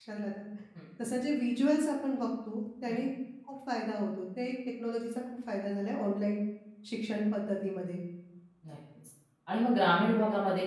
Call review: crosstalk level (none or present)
none